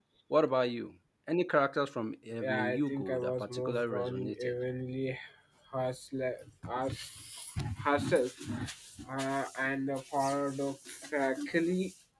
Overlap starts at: 2.4 s

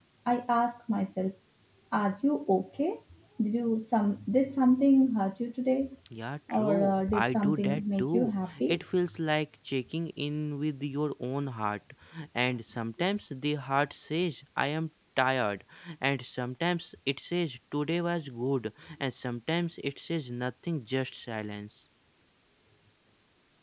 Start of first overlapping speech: 6.5 s

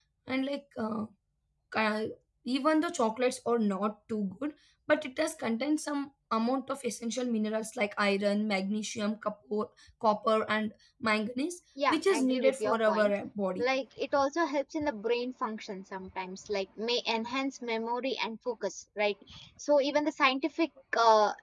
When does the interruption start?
11.8 s

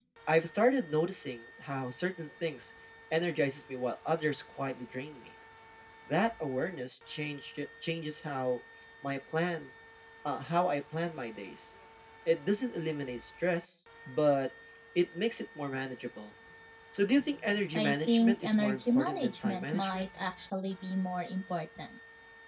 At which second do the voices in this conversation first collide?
17.7 s

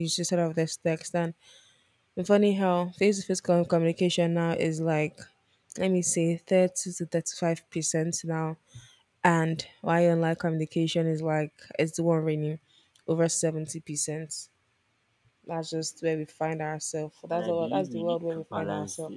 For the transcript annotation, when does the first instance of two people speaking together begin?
17.3 s

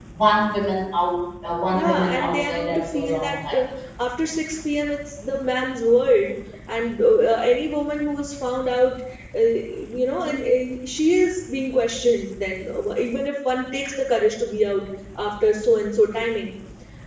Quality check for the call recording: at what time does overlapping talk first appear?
1.7 s

